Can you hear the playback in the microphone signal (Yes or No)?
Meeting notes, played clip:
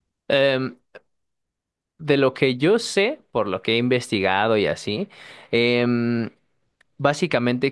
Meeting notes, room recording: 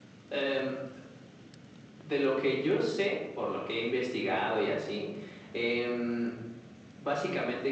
Yes